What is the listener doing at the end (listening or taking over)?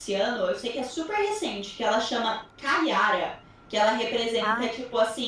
listening